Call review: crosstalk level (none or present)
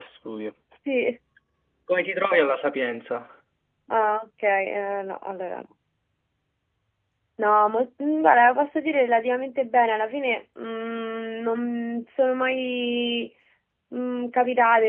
none